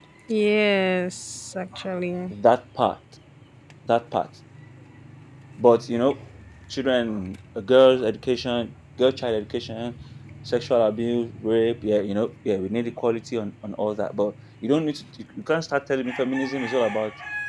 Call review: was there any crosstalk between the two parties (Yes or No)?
No